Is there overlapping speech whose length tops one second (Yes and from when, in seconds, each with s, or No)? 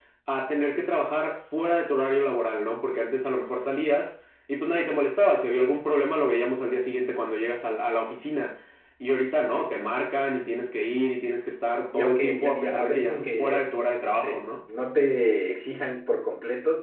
Yes, from 11.9 s